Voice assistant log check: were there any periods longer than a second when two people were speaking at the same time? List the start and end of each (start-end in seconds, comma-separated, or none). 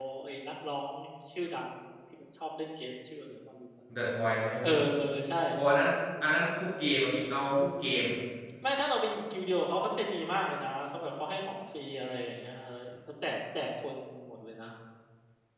none